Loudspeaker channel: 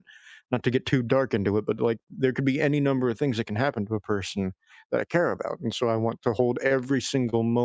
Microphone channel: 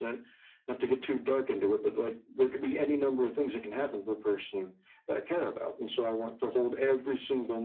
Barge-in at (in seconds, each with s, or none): none